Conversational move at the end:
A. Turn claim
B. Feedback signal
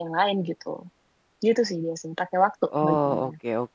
A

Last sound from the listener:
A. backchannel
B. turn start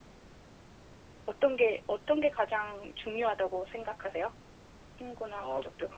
B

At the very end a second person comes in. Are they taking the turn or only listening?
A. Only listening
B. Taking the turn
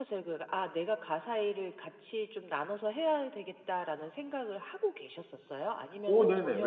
B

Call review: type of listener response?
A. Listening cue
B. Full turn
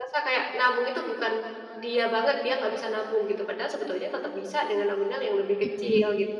B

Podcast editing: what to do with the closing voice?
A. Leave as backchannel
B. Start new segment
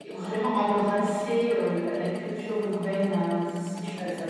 A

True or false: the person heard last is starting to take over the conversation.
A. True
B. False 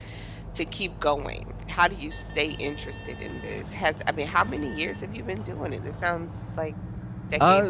A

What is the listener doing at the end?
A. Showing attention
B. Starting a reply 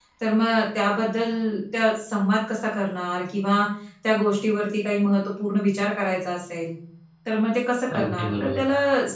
A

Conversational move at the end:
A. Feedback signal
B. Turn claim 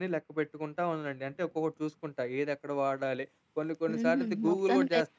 B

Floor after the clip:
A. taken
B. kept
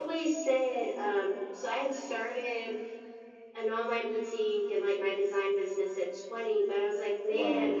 B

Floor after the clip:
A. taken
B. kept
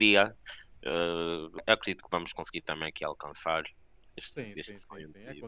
A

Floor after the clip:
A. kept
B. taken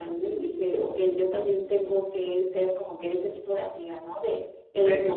A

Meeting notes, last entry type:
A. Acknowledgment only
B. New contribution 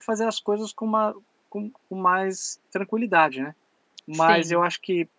A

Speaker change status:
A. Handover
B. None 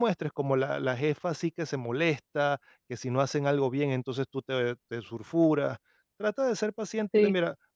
B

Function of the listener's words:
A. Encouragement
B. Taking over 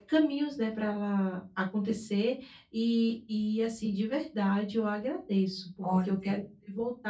A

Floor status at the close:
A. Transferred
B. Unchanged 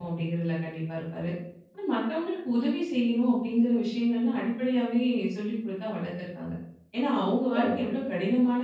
B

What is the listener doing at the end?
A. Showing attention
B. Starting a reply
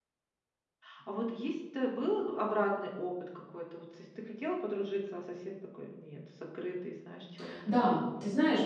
B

